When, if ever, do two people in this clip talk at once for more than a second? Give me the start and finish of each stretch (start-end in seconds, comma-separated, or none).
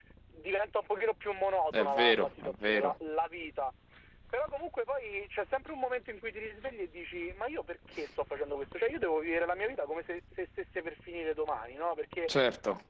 1.7-2.9